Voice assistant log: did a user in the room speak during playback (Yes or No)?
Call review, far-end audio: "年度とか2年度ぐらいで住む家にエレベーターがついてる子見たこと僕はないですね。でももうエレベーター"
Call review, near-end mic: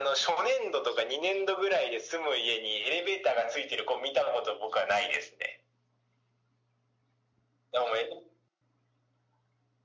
No